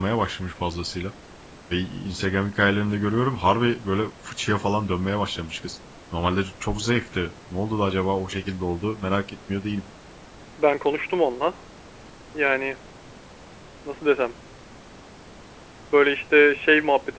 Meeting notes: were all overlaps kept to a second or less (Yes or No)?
Yes